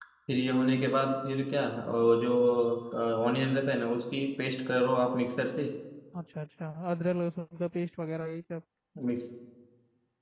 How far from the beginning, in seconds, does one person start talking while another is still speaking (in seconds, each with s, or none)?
none